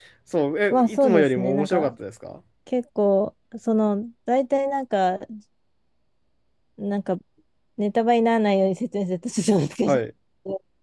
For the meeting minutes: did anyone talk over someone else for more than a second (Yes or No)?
Yes